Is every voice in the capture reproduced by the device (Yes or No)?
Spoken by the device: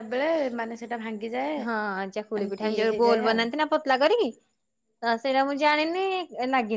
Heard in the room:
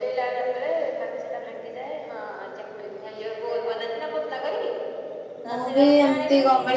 No